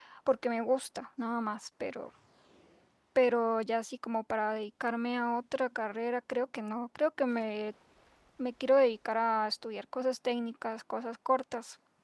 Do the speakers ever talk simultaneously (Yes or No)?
No